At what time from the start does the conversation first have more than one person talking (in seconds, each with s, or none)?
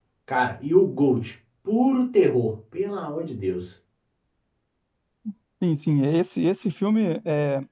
none